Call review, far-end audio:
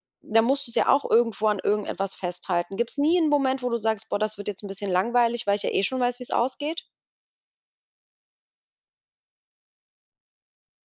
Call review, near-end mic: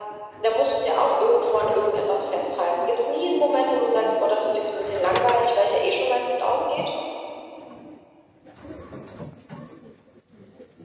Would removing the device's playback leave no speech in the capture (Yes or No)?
Yes